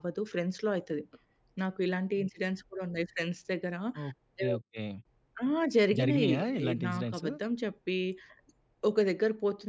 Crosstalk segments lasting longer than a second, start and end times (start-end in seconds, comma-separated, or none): 6.0-7.3